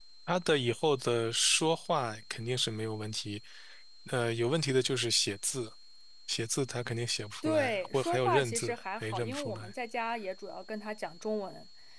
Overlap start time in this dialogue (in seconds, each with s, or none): 7.4 s